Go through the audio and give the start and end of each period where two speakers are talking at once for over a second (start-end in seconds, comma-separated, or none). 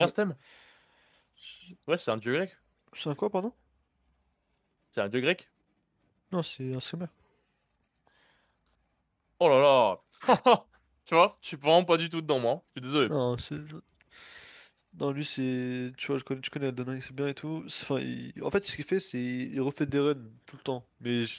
none